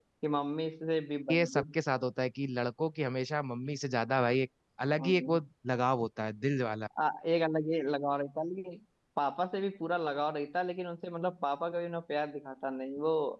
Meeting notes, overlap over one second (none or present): none